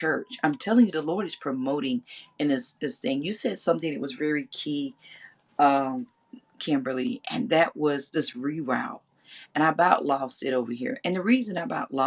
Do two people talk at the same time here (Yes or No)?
No